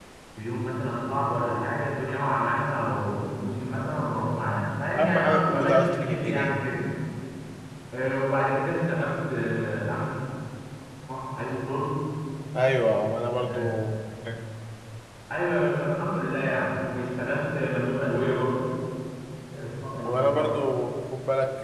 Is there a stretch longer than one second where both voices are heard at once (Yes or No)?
Yes